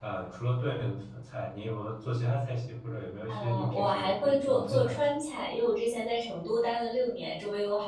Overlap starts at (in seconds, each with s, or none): 3.3 s